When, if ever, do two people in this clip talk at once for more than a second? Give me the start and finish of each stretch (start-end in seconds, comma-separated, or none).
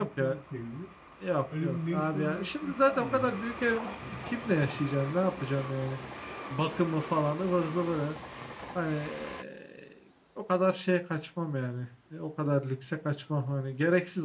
1.6-3.3